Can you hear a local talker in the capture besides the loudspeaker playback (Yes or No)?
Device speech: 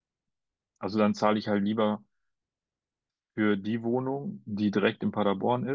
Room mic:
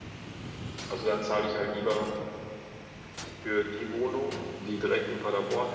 No